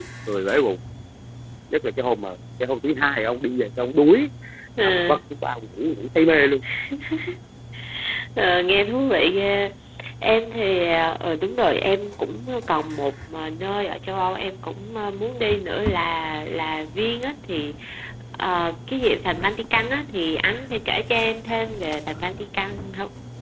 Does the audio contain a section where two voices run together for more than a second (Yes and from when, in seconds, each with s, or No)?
No